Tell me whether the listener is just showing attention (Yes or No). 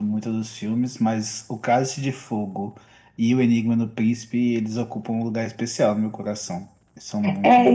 No